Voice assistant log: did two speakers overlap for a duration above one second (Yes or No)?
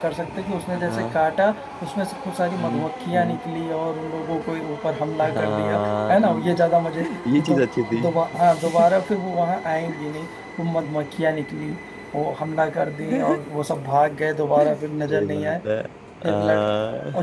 Yes